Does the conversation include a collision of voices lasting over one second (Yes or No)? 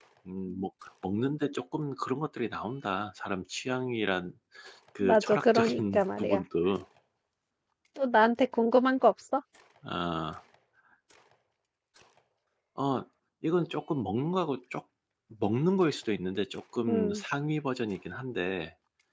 Yes